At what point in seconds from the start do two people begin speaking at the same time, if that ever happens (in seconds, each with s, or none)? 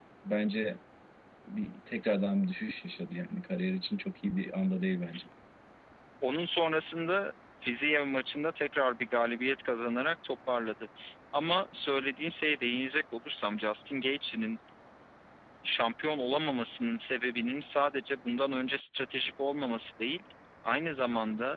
none